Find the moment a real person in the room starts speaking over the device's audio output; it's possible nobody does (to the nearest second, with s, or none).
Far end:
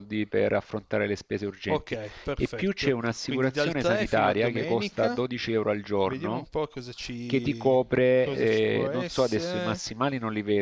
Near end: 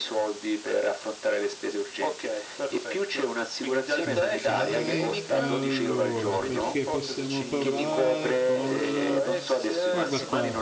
4 s